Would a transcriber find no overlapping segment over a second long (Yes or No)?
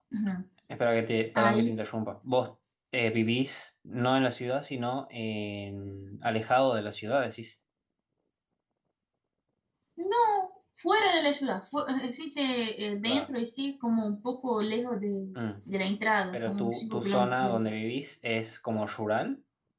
No